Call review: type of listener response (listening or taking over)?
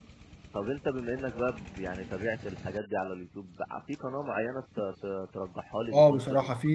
taking over